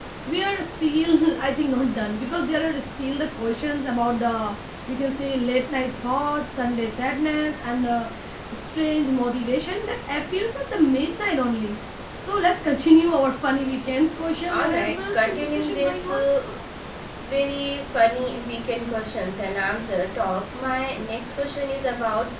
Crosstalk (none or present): present